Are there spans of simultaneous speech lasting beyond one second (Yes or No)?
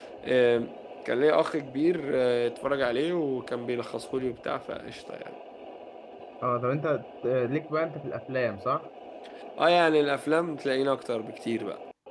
No